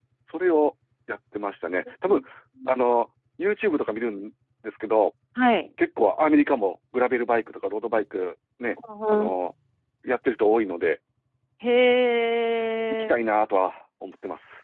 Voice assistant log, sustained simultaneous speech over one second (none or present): none